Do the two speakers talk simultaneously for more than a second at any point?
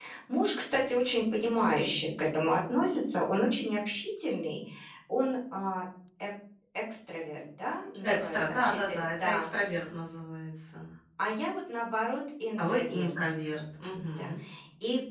Yes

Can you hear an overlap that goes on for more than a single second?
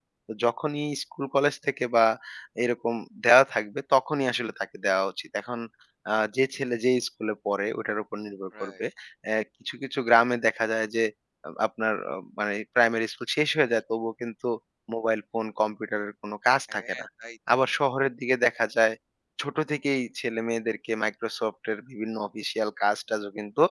No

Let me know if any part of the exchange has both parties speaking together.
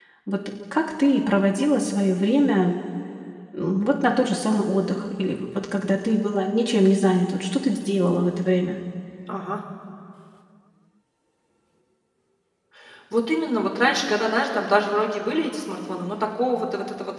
No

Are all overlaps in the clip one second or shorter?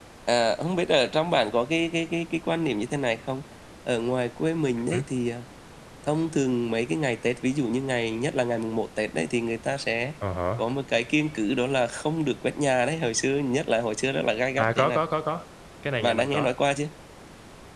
Yes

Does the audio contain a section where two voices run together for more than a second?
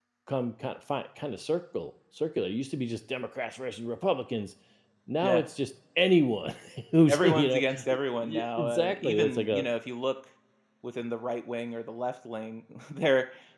Yes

